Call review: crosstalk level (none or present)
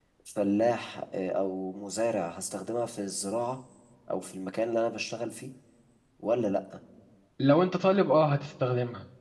none